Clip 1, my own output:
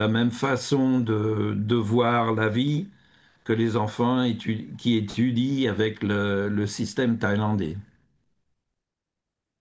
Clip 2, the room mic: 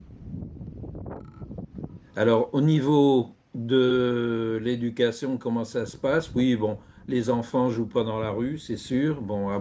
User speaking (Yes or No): Yes